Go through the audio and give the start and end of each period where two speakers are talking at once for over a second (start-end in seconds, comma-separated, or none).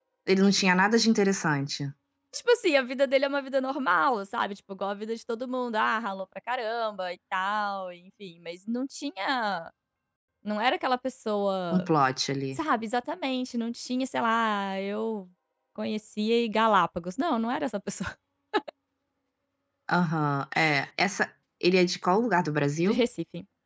none